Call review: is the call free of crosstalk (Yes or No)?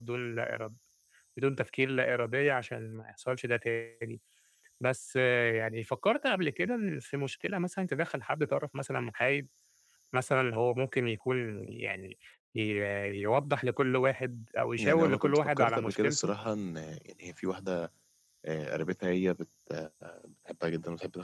No